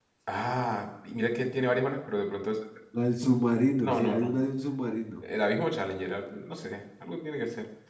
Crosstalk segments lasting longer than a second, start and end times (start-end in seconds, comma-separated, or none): none